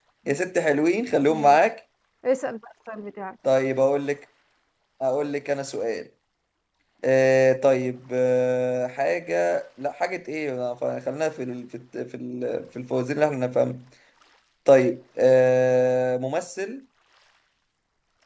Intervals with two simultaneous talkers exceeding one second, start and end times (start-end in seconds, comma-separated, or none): none